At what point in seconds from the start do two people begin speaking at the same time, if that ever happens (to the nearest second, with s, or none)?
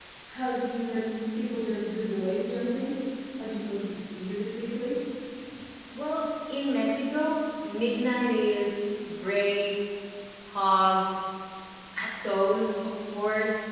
none